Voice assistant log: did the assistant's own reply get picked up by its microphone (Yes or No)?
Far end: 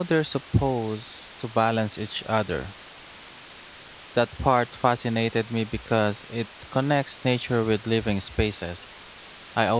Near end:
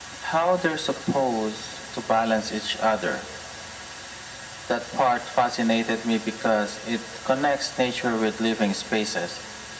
Yes